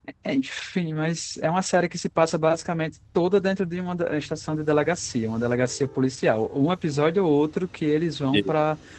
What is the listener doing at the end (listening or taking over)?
listening